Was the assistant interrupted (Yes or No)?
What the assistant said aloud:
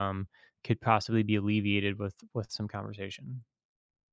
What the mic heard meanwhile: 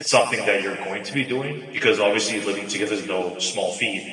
Yes